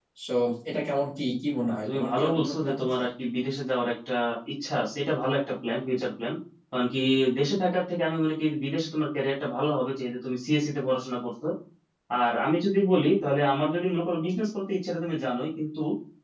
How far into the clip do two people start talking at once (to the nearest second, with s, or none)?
2 s